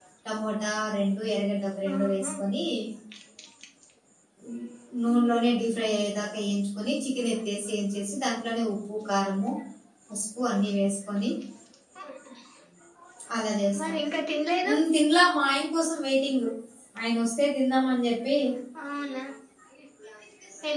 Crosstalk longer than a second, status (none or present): none